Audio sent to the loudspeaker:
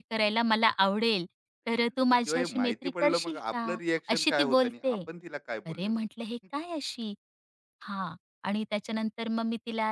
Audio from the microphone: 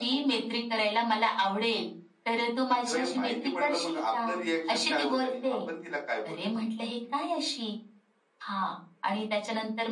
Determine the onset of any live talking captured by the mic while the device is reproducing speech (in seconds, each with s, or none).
none